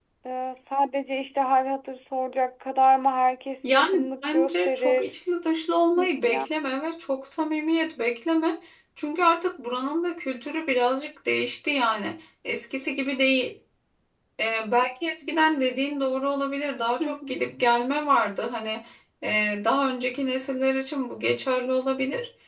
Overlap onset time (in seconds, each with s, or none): 3.6 s